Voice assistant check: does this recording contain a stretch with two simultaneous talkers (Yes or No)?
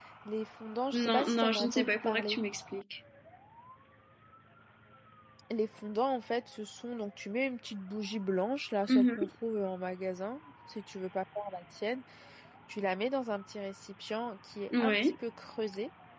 Yes